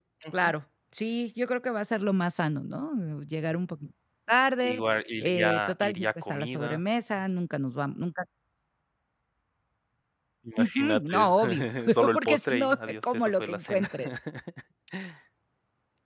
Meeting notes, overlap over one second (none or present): present